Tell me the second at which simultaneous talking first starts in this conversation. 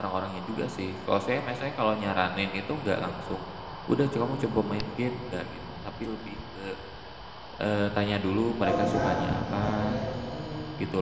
8.6 s

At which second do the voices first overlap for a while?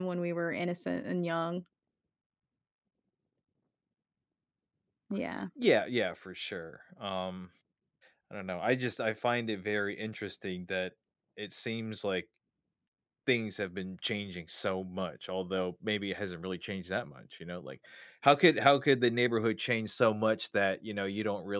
none

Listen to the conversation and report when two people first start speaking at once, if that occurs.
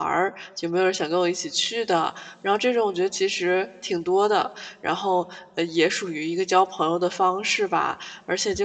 none

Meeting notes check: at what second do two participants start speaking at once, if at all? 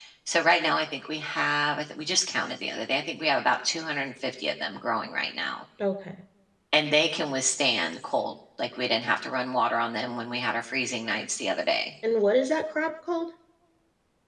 none

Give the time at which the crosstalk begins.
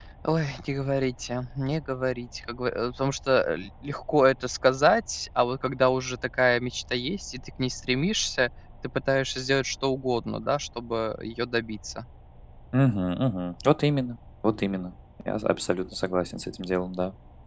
none

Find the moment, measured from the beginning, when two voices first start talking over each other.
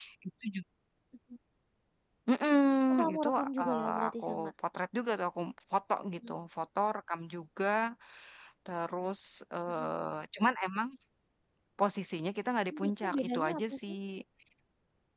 3.1 s

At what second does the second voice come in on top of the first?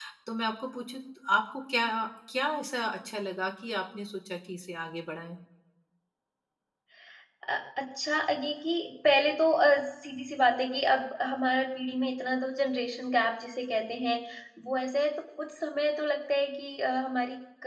none

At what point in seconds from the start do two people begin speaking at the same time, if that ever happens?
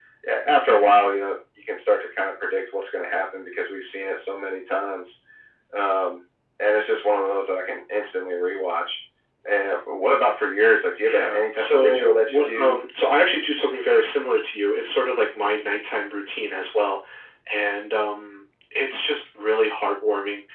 11.1 s

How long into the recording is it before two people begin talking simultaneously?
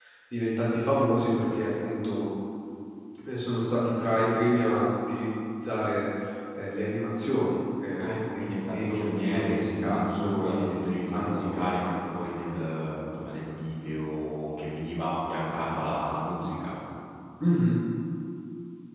8.0 s

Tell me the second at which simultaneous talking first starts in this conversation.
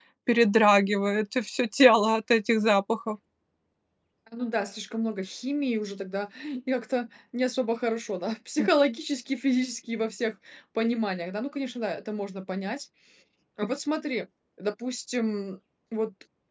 none

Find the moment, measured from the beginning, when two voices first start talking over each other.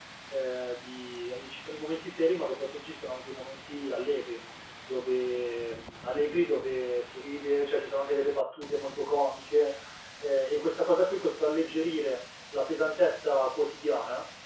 none

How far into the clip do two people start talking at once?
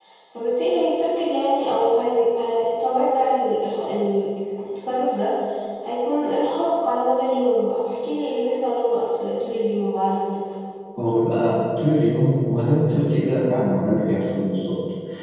none

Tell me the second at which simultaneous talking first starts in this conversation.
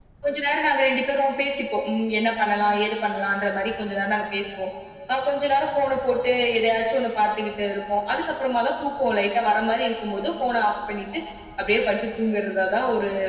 none

